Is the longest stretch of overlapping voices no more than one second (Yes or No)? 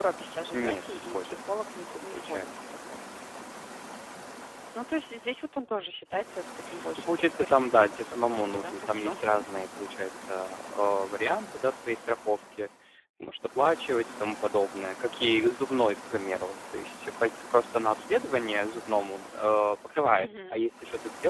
No